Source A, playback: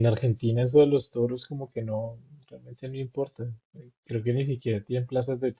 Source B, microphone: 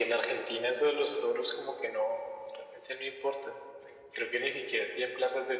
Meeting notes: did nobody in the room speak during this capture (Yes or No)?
Yes